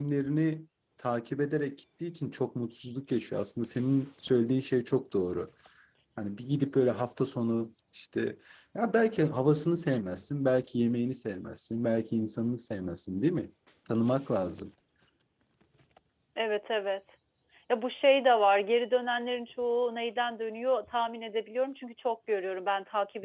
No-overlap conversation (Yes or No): Yes